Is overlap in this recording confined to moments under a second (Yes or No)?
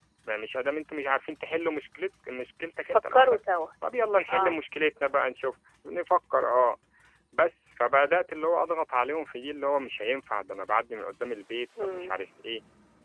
Yes